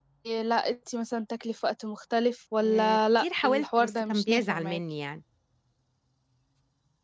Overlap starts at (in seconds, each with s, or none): 2.6 s